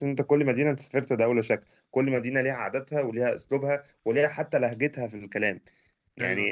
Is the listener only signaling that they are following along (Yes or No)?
Yes